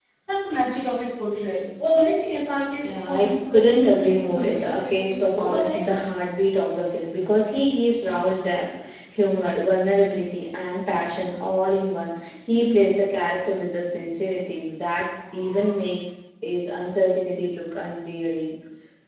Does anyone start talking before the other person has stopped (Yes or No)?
Yes